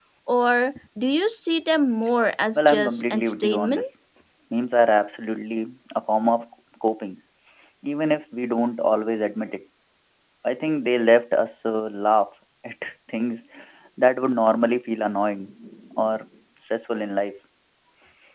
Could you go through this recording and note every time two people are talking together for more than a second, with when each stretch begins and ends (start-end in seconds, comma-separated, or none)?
2.5-3.8